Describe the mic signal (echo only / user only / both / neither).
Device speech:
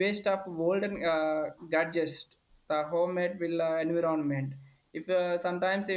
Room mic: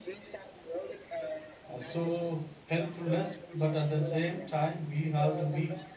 both